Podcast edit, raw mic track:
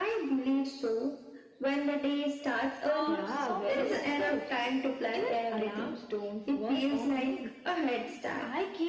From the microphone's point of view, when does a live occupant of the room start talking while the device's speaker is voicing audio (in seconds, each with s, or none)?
2.8 s